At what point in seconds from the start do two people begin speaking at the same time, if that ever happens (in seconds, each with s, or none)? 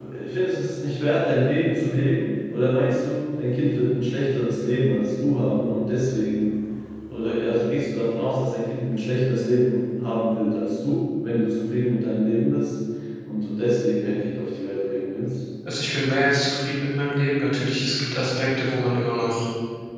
none